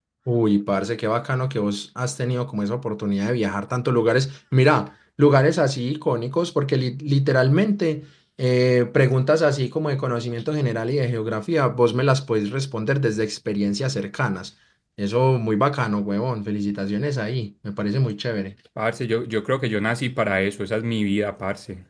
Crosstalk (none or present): none